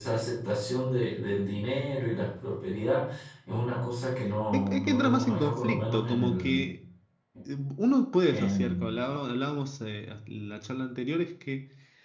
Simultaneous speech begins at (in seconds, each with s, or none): 4.5 s